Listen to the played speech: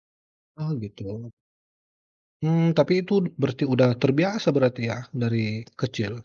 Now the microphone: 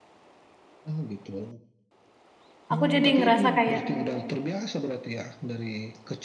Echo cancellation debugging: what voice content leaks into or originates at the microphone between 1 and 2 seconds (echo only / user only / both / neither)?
echo only